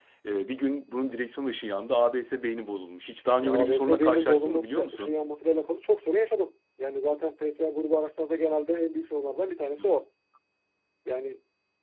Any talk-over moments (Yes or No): Yes